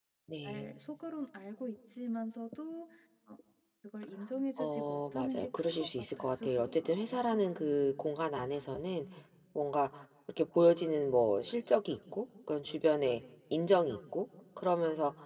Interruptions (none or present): present